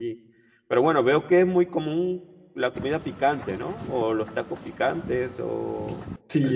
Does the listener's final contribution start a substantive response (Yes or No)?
Yes